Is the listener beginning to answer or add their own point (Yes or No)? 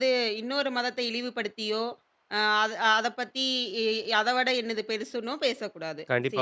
Yes